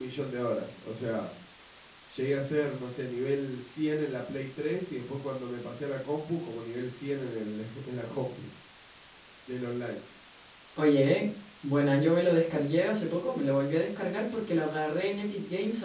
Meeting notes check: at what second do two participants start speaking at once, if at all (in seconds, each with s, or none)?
none